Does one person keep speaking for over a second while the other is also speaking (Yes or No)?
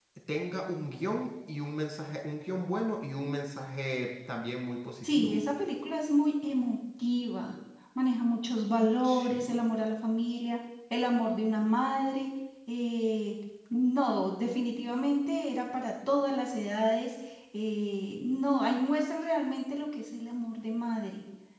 No